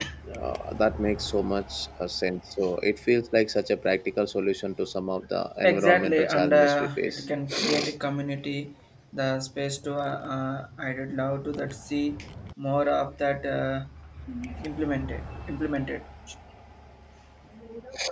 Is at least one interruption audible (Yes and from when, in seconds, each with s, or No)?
Yes, from 5.6 s